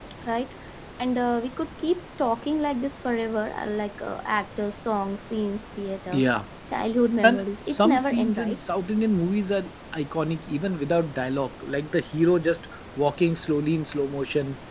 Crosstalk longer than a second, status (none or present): present